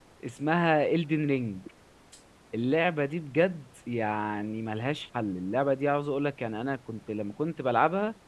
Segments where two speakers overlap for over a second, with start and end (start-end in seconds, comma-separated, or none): none